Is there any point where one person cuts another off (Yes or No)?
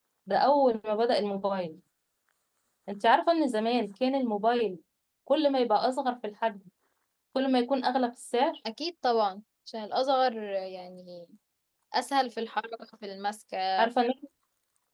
No